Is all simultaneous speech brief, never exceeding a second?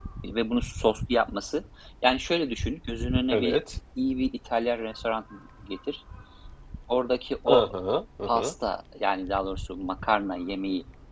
Yes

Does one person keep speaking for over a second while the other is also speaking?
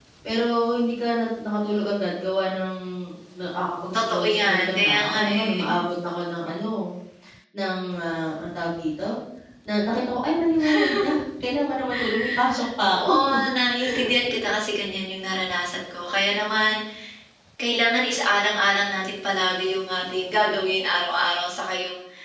Yes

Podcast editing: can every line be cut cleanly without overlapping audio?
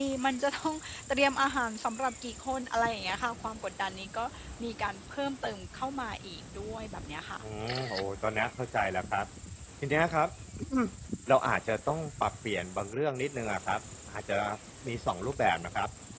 Yes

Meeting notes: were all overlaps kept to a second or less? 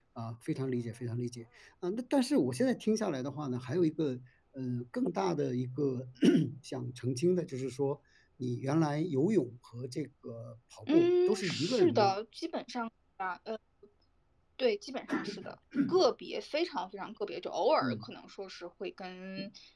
No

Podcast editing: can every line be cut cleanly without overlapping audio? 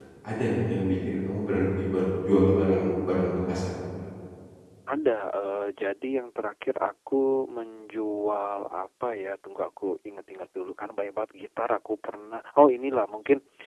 Yes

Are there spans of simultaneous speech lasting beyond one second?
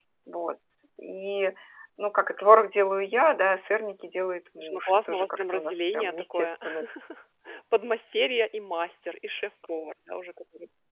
Yes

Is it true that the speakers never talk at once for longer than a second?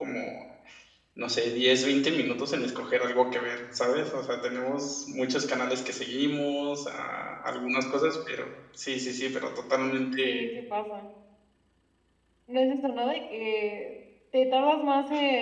Yes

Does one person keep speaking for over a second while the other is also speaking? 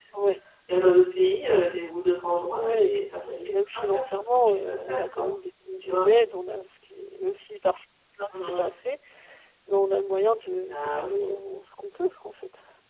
Yes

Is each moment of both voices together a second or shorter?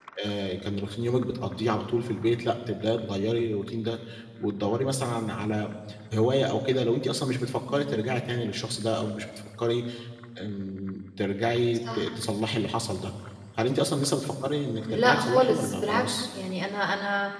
No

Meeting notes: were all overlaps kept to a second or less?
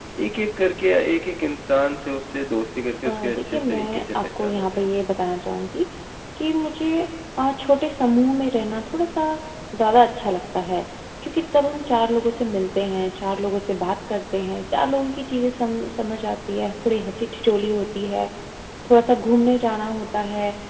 No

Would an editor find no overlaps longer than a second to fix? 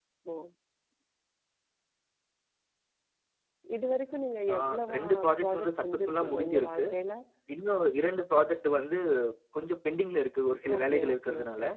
No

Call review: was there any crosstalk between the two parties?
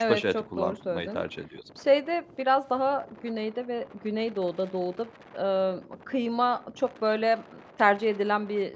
Yes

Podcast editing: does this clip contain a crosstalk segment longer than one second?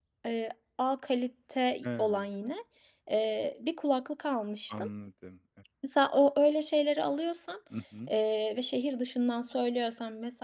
No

